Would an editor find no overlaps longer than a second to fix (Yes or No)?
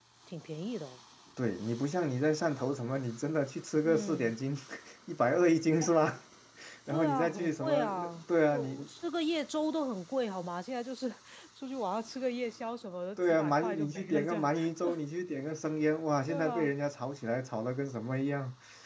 No